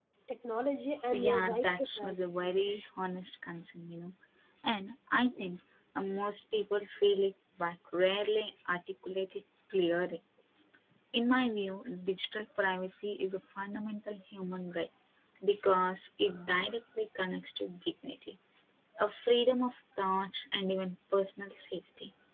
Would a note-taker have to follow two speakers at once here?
Yes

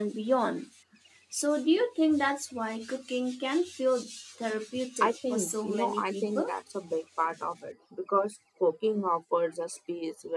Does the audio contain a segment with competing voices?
Yes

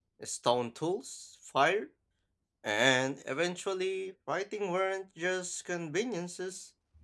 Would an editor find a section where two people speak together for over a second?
No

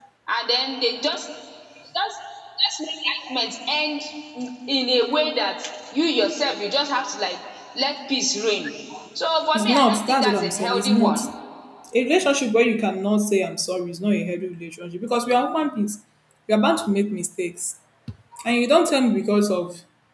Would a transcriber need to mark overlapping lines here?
Yes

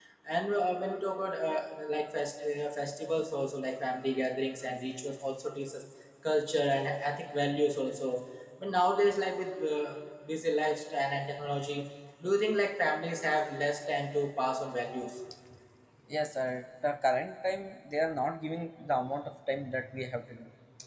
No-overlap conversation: Yes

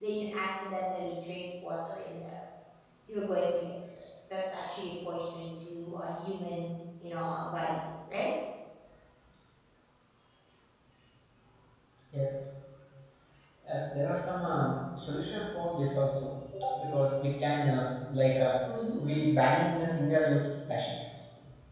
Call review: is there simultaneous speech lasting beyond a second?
No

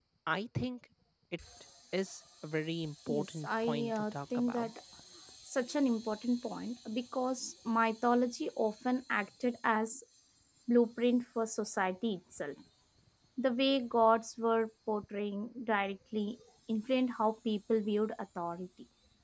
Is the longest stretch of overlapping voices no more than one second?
No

